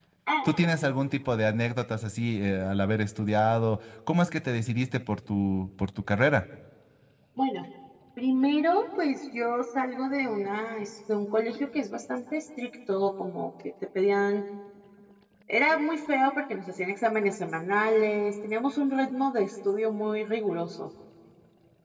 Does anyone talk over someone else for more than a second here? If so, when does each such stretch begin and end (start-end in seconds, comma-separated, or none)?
none